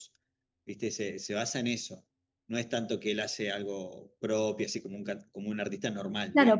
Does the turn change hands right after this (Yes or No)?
Yes